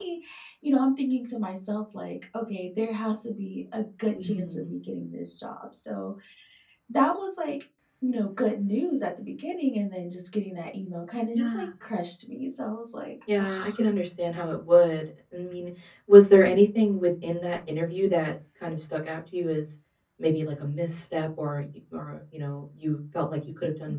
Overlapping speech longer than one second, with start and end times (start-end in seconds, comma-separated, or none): none